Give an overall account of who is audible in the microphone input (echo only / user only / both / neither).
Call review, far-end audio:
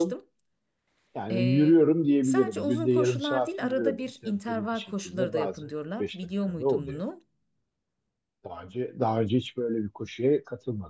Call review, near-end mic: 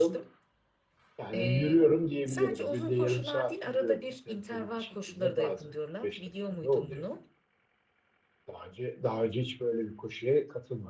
echo only